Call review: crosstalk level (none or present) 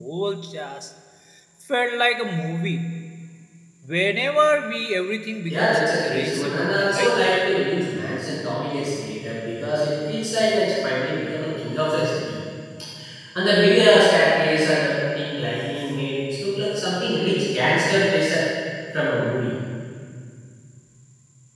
present